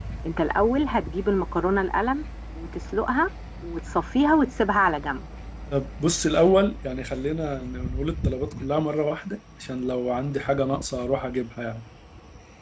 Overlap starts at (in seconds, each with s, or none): none